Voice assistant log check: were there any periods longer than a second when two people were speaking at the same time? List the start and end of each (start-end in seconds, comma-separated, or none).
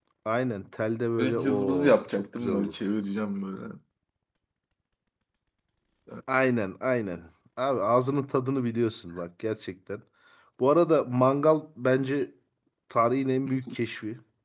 1.2-2.7